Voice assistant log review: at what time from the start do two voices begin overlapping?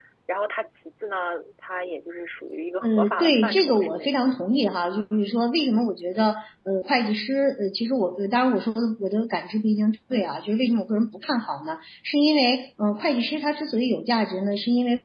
2.8 s

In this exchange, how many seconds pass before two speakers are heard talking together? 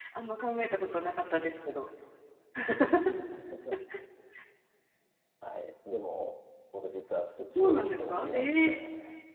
7.5 s

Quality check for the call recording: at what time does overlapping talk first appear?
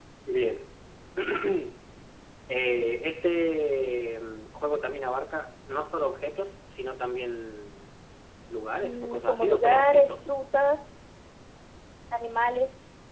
8.8 s

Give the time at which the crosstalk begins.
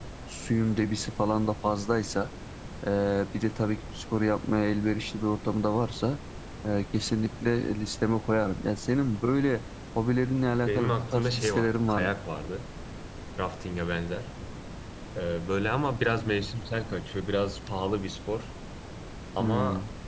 10.7 s

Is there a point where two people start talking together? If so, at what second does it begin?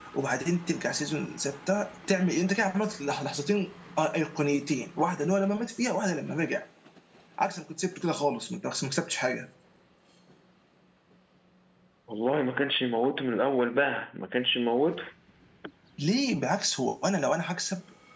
none

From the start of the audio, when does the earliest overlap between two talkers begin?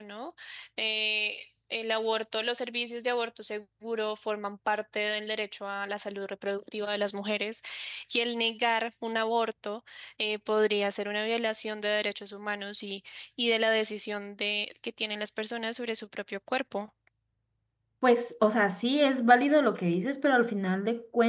none

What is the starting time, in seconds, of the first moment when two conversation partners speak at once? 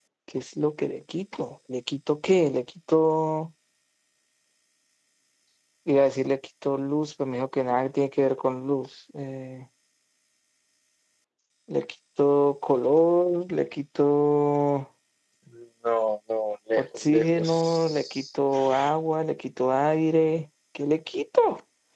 16.8 s

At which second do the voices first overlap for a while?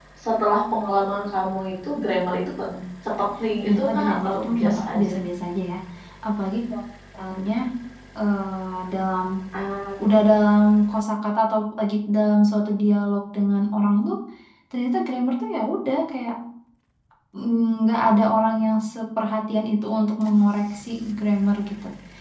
3.7 s

